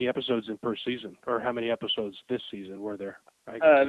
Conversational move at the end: taking over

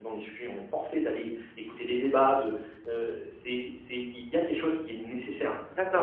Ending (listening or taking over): taking over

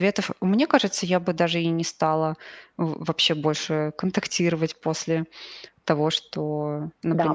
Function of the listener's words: taking over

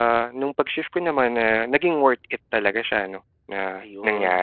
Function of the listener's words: taking over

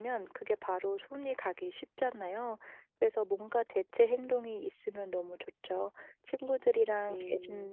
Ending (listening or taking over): listening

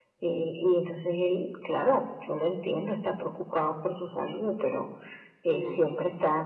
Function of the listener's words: listening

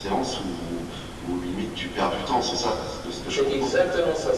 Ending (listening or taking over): taking over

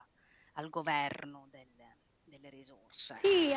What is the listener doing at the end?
taking over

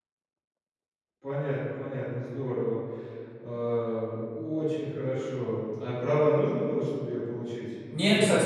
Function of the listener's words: taking over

